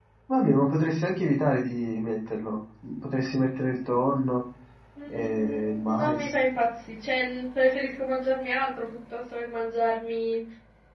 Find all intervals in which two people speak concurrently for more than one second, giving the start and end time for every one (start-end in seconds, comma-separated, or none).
5.1-6.4